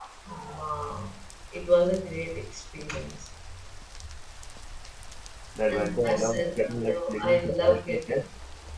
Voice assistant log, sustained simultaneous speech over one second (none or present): present